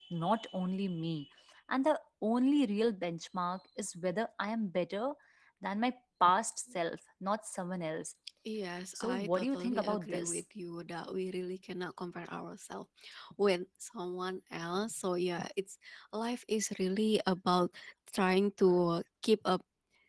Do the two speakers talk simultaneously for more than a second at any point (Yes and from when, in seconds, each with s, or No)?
Yes, from 9.0 s